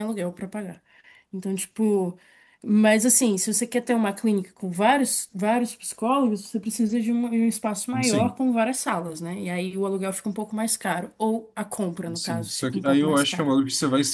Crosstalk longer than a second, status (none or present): present